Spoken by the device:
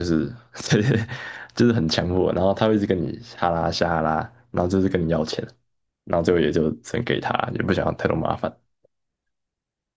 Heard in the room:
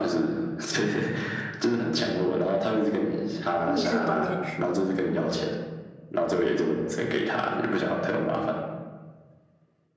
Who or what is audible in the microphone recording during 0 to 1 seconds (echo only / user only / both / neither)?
echo only